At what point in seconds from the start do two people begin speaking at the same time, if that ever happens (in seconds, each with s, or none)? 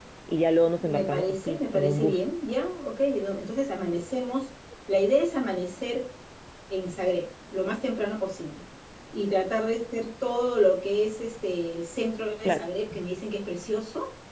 0.8 s